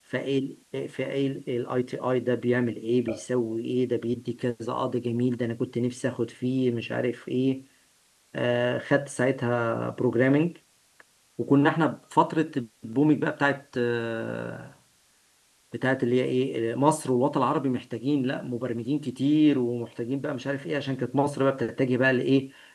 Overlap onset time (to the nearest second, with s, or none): none